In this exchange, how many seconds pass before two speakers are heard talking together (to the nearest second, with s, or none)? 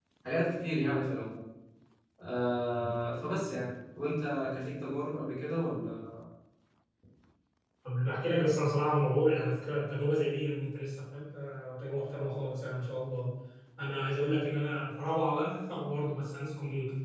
none